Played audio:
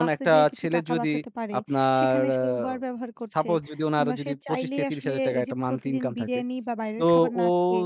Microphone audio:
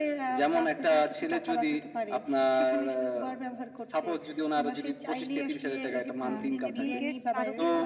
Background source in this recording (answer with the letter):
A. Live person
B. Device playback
A